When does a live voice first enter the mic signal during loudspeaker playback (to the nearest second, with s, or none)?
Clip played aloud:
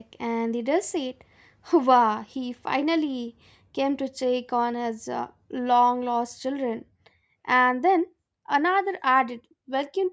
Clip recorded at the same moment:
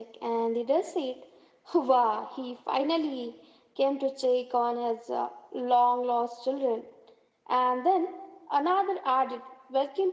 none